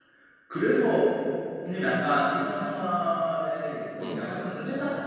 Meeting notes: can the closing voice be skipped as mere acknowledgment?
Yes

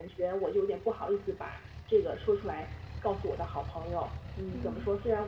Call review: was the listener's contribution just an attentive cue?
Yes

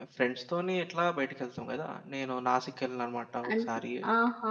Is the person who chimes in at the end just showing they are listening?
No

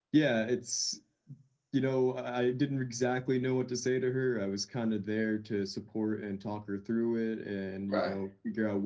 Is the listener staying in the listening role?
Yes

